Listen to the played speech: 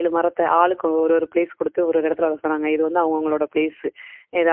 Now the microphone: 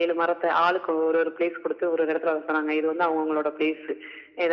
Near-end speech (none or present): none